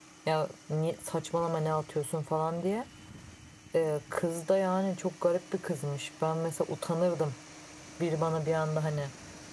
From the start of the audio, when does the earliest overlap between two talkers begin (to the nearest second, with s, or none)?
none